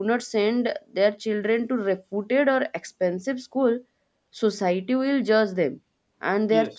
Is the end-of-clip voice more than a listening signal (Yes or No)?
No